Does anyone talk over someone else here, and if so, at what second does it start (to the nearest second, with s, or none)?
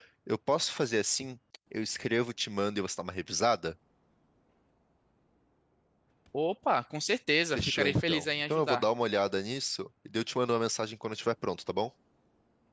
8 s